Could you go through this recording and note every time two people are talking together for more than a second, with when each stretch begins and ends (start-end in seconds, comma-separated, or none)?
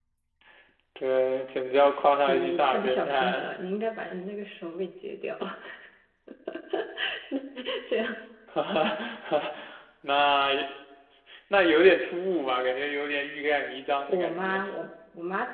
2.2-3.5